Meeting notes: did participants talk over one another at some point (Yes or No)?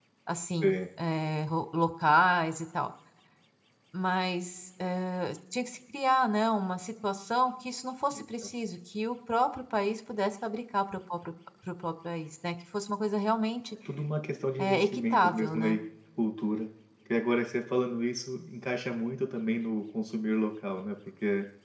Yes